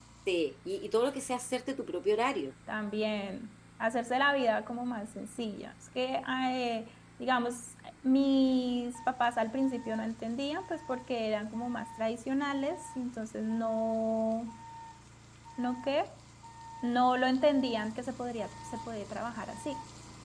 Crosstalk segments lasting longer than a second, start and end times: none

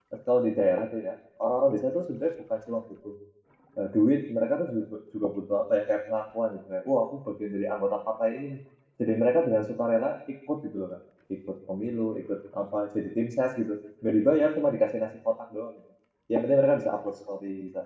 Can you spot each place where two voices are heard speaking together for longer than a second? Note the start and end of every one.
none

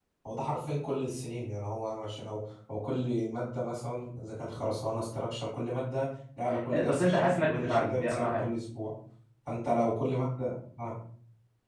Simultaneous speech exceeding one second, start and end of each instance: 6.8-8.4

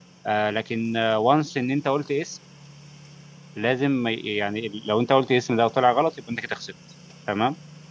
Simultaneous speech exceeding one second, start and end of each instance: none

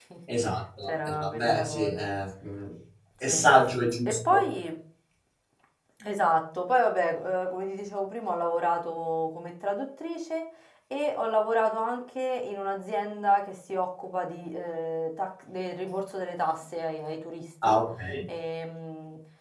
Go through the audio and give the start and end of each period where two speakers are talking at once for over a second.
0.9-2.1

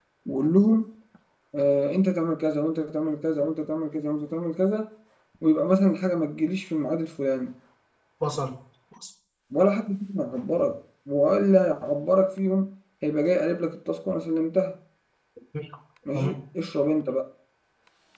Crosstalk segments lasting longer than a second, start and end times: none

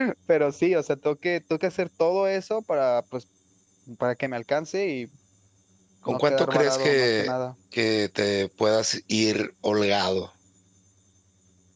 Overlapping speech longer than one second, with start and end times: 6.1-7.3

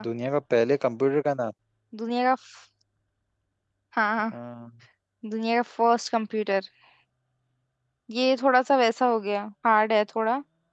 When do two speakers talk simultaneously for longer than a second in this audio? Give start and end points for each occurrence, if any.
none

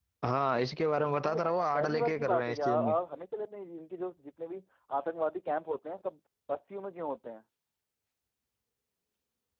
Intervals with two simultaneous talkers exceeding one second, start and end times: 1.2-2.9

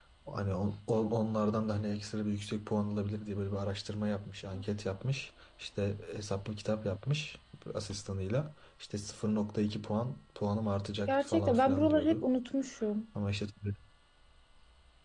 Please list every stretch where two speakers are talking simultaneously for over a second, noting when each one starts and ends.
11.1-12.3

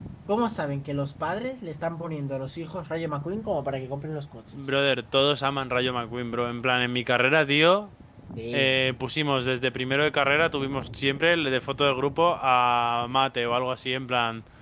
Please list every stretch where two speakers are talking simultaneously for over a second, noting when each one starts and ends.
none

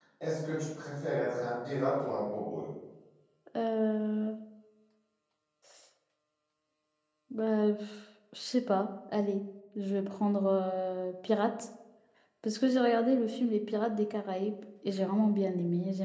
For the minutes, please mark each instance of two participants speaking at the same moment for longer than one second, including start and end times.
none

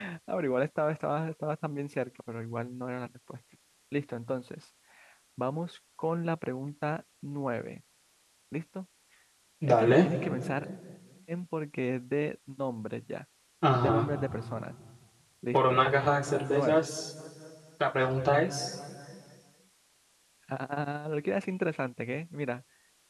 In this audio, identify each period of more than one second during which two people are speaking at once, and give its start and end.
none

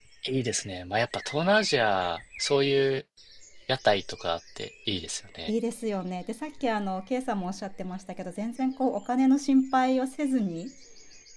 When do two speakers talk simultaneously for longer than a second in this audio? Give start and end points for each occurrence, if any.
none

